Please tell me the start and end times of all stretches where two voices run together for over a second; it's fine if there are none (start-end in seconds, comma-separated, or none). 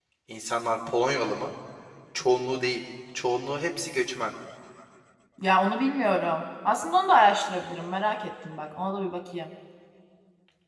none